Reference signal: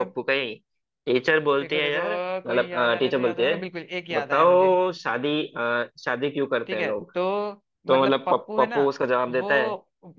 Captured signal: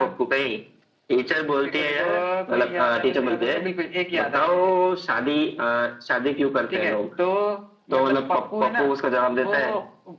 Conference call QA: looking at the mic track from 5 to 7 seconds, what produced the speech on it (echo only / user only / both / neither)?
echo only